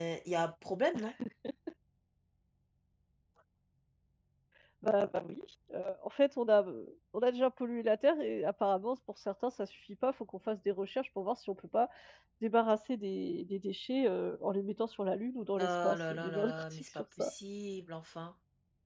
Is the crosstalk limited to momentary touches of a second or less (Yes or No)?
No